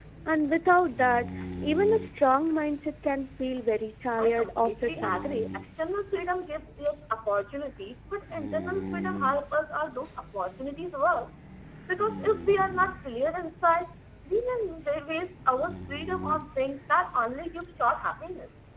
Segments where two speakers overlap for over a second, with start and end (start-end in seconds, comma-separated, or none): 4.2-5.4